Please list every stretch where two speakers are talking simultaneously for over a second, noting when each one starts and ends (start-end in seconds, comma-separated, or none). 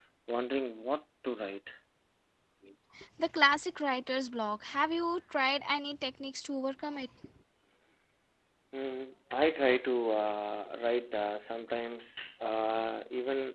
none